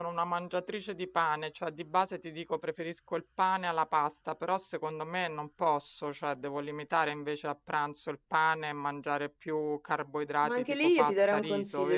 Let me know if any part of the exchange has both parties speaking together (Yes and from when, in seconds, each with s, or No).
Yes, from 10.4 s